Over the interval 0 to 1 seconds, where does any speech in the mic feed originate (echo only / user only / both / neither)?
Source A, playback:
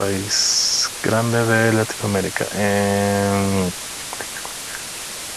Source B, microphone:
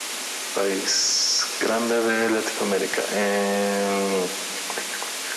echo only